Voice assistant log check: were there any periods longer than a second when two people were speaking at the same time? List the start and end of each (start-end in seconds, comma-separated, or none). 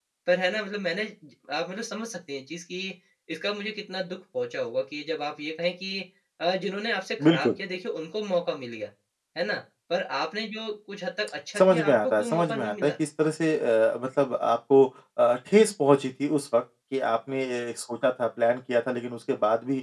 11.6-12.9